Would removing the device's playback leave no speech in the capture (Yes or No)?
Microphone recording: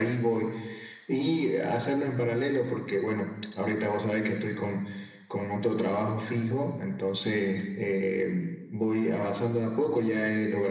Yes